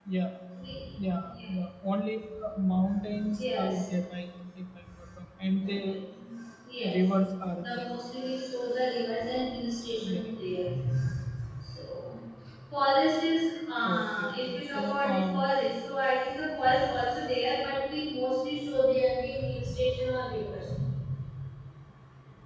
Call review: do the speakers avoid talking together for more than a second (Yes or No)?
No